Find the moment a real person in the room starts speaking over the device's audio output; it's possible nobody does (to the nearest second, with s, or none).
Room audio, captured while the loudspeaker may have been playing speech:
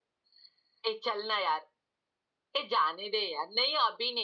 none